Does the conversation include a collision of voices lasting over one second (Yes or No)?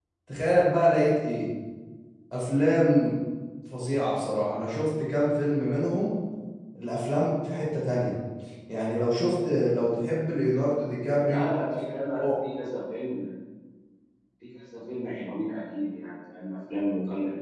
No